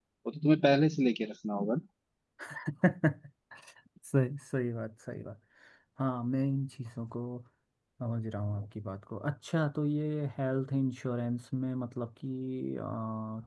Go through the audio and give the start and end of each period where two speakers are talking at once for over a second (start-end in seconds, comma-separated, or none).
none